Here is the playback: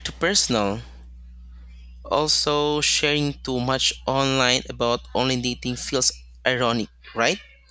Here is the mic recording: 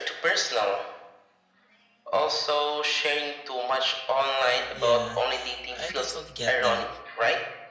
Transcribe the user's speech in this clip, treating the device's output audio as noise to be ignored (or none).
Yeah, I totally get that.